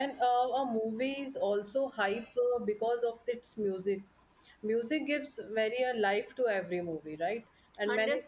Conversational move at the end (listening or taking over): taking over